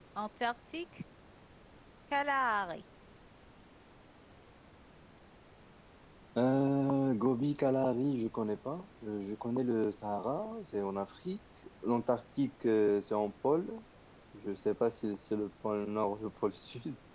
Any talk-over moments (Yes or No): No